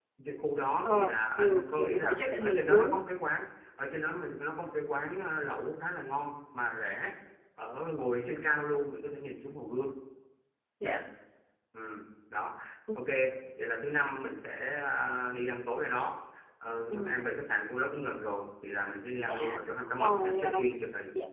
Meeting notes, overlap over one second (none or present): present